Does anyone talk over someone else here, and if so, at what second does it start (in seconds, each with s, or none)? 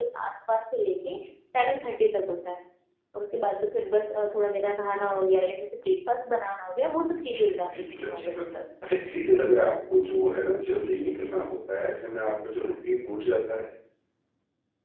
7.1 s